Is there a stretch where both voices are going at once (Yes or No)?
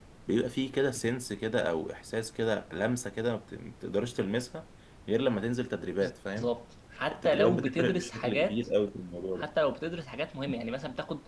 Yes